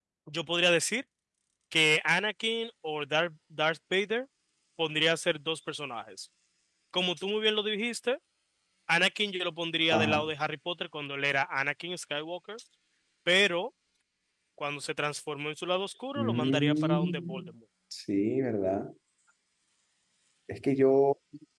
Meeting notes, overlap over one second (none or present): present